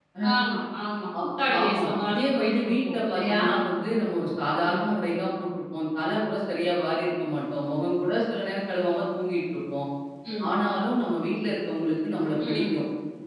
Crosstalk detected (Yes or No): Yes